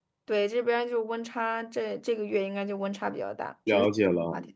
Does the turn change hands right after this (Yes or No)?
Yes